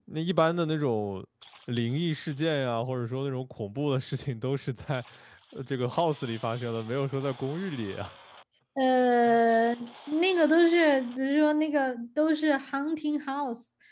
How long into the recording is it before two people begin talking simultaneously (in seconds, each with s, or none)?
none